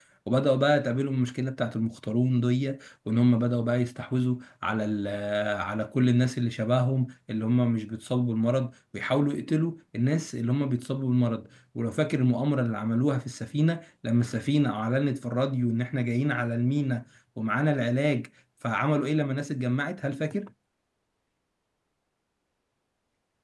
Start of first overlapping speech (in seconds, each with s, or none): none